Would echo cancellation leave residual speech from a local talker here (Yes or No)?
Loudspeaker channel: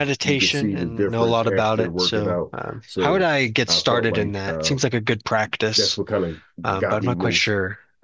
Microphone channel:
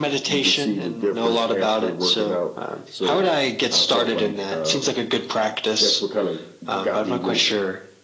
No